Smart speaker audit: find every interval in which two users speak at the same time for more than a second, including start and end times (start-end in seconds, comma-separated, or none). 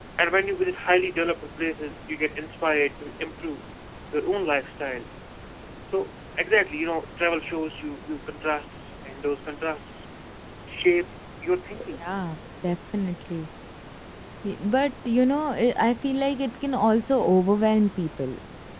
none